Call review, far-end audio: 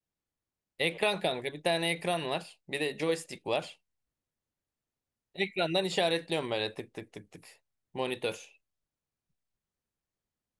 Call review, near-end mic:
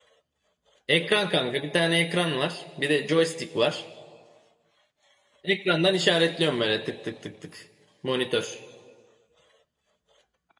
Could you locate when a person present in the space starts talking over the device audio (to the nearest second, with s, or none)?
none